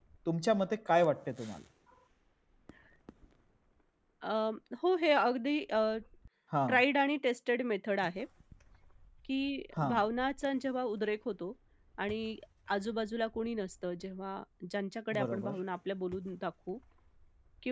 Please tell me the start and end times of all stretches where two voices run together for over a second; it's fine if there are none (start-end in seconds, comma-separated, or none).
none